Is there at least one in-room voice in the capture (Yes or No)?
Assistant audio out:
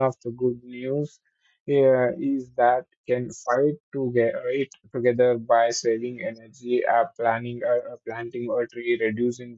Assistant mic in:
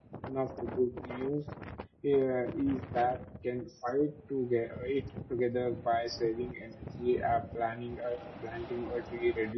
No